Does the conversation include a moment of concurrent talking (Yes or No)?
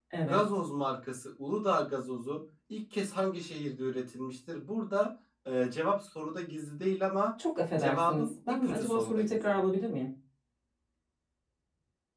Yes